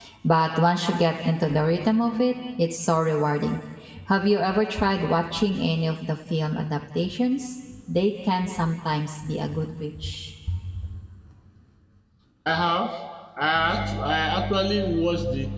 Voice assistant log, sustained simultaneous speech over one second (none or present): none